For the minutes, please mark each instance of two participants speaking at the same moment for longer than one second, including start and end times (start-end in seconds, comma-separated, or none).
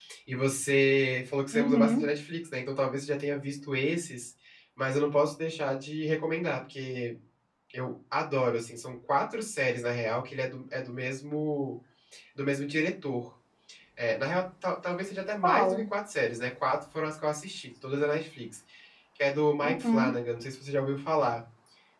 none